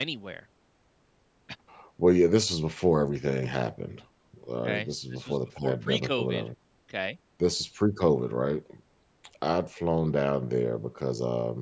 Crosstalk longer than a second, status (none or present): present